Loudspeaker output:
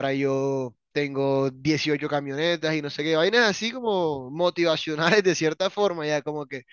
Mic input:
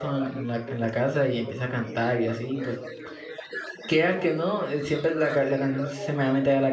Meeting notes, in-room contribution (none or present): present